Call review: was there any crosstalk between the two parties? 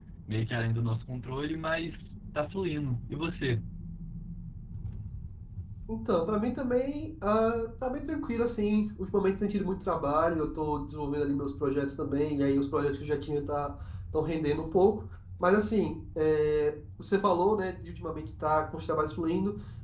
No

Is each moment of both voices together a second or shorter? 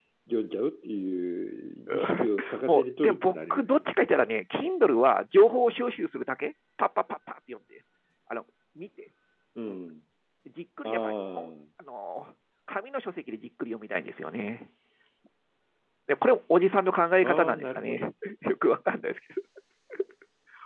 No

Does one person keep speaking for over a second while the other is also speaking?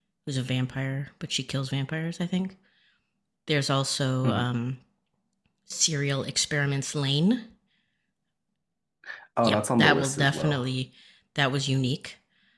Yes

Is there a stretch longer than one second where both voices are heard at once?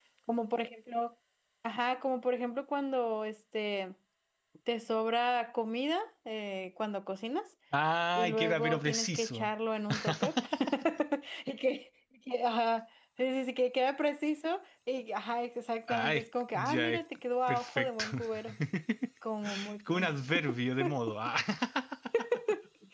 Yes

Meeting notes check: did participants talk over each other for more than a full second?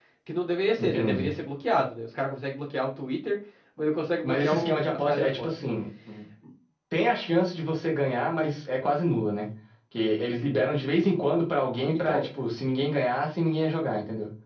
Yes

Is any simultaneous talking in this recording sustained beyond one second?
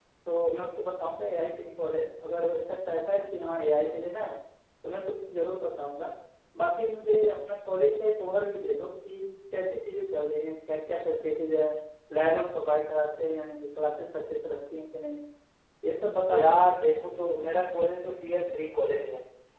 No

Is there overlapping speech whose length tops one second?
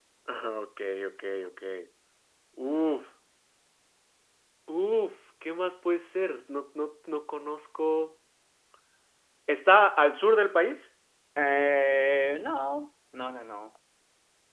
No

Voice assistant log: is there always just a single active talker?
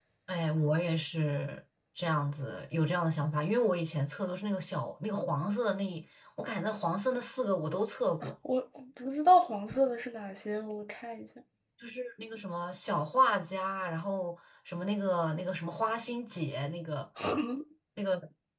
Yes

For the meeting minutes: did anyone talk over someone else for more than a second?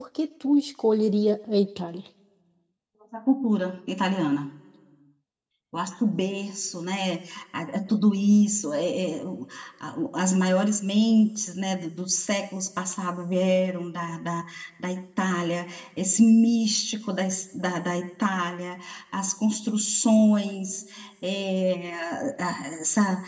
No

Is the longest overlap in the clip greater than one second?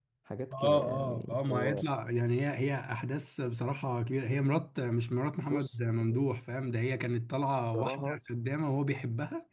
Yes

